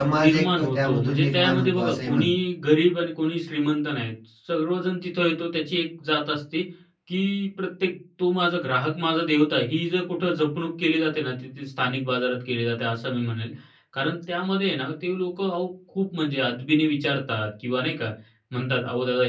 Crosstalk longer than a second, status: present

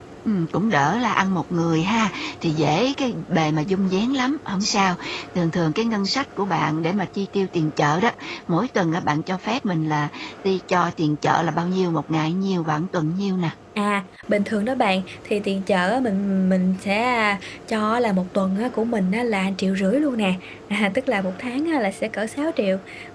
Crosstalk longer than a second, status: none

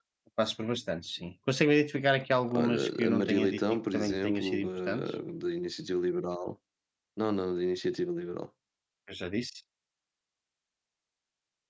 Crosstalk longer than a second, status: present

